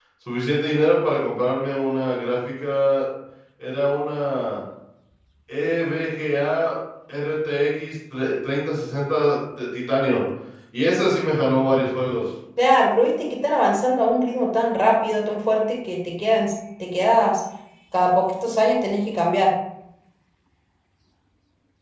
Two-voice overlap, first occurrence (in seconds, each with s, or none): none